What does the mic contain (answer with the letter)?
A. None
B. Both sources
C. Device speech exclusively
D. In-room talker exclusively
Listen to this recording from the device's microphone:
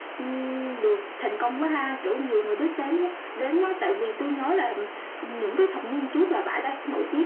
C